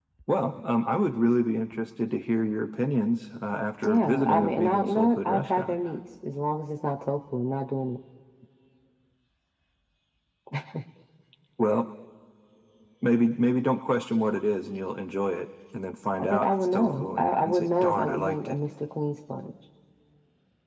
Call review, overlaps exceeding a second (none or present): present